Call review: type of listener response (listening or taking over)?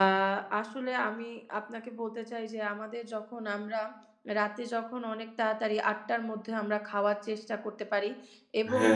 listening